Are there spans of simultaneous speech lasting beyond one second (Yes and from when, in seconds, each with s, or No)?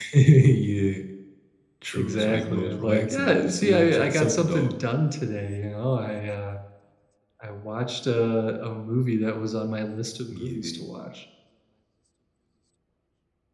Yes, from 1.9 s